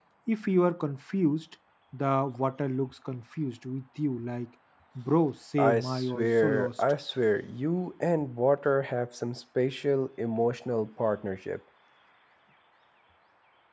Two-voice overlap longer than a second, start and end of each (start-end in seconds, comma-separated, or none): 5.6-6.8